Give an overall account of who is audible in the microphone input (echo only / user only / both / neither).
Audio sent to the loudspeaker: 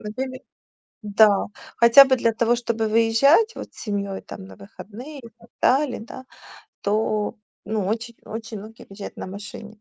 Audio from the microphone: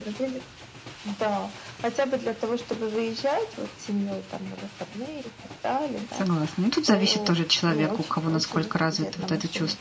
both